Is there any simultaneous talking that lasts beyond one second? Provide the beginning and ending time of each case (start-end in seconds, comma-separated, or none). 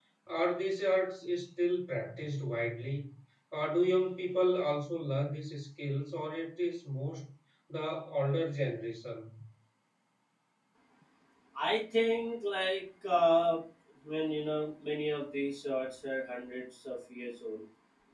none